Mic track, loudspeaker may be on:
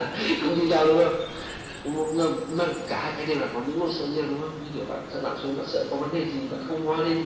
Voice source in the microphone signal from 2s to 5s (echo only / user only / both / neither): echo only